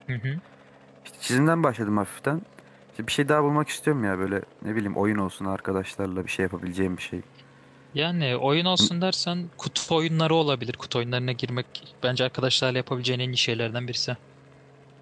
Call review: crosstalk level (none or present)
none